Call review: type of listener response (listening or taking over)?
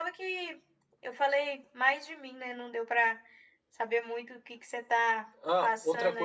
taking over